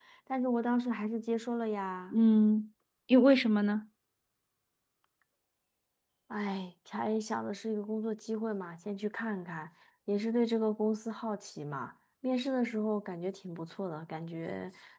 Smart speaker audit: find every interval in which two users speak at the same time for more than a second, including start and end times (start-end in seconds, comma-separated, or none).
none